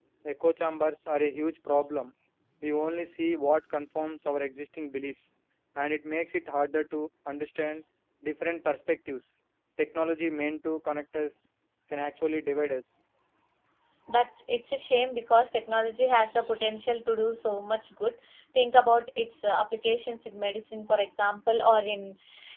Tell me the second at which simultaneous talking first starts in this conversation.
none

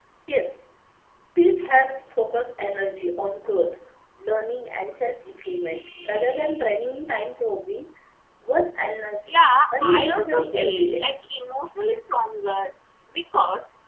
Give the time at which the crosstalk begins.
9.7 s

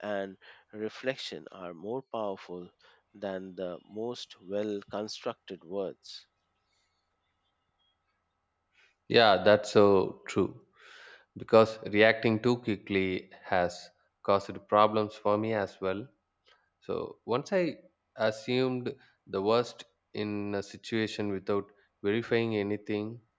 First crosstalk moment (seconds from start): none

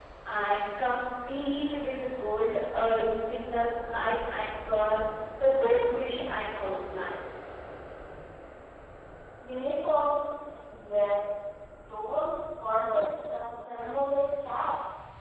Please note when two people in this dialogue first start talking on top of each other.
none

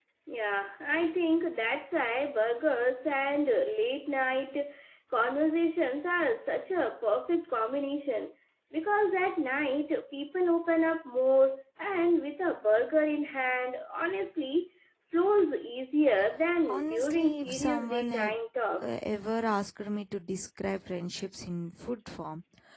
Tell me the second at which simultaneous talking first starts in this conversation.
16.7 s

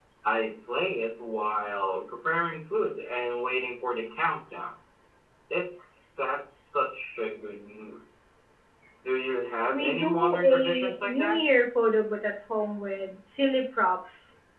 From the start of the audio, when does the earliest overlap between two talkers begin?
9.7 s

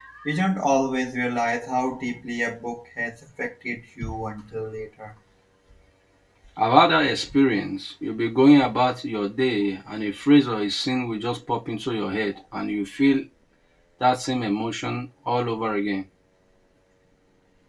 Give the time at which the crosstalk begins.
none

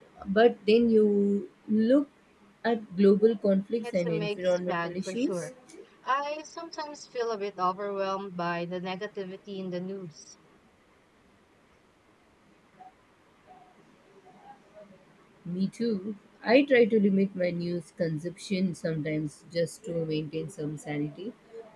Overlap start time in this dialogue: 3.8 s

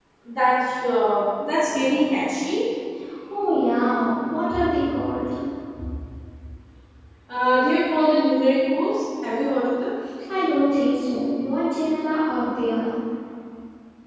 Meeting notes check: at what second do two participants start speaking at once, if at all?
none

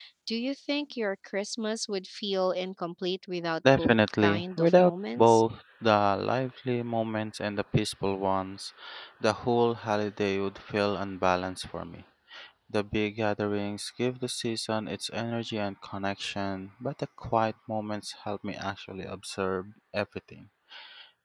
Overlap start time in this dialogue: 3.6 s

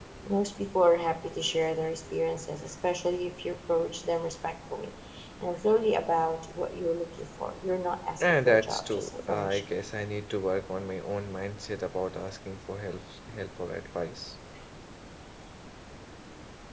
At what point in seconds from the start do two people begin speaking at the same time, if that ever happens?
8.2 s

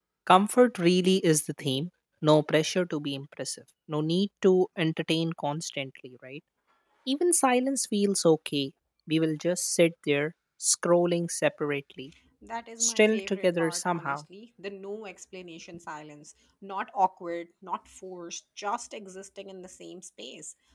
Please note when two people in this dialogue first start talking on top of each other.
12.8 s

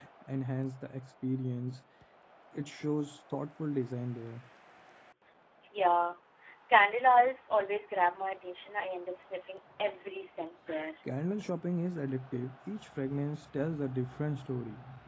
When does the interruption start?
none

